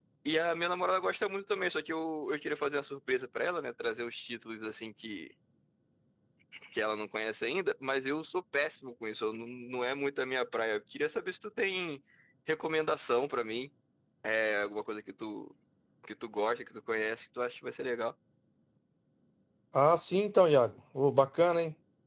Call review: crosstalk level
none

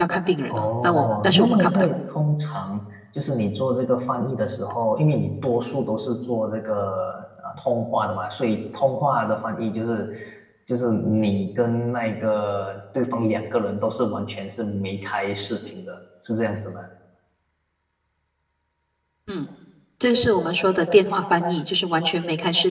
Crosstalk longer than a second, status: present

